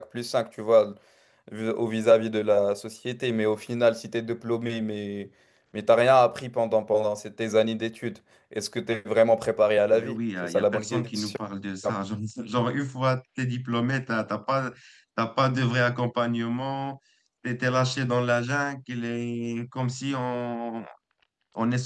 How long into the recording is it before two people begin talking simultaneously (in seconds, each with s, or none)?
9.9 s